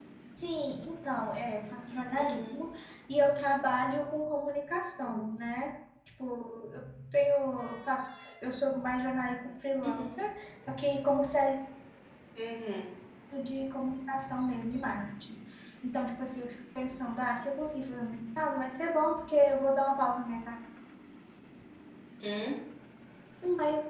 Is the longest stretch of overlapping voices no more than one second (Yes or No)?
Yes